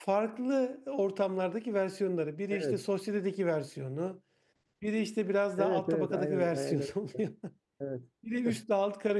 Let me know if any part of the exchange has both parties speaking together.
Yes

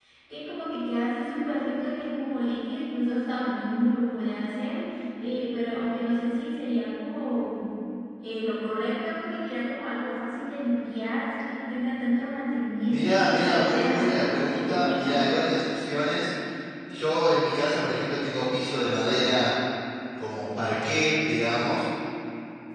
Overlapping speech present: Yes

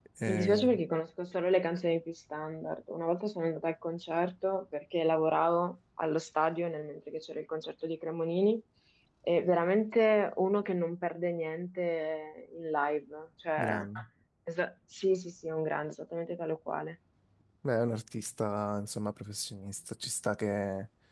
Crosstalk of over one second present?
No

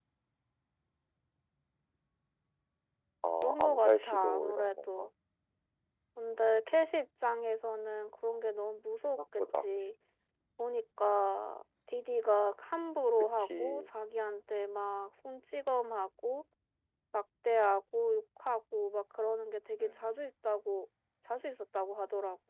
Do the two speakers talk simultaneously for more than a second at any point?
Yes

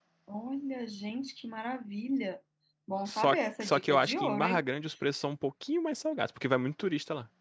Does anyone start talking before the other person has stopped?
Yes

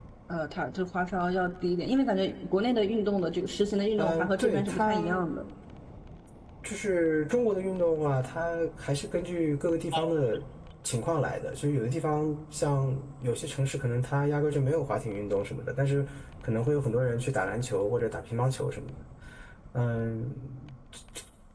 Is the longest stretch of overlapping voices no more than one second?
No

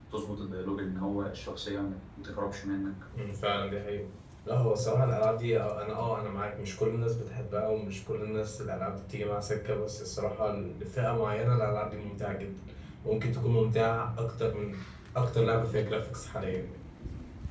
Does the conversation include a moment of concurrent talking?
No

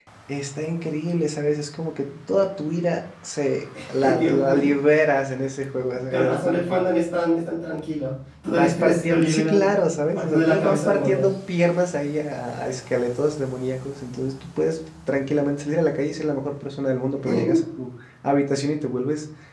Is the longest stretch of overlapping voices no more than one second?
No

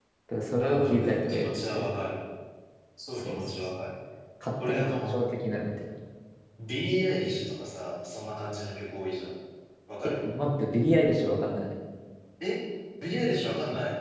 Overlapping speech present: Yes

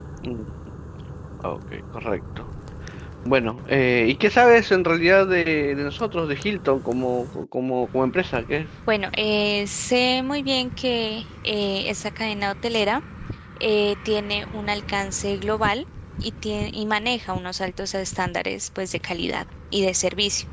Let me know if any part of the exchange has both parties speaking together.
No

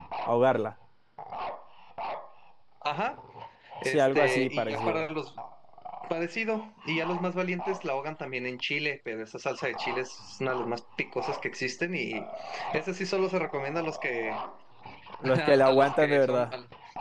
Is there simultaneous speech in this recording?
Yes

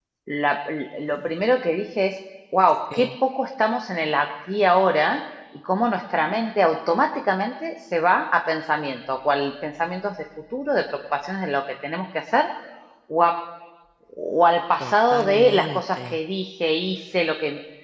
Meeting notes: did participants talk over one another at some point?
Yes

